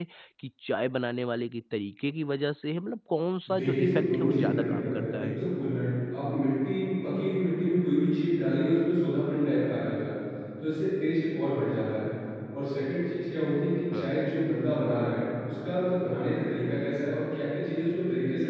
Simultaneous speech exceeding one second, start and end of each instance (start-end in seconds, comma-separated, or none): 3.5-5.4